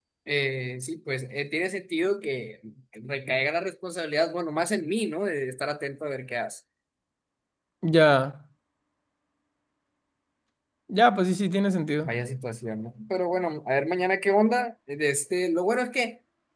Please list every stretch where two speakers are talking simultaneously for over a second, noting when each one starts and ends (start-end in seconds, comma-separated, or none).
none